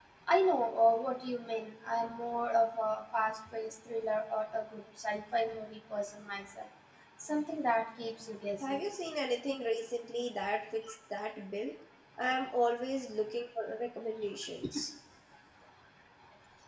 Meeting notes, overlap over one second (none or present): none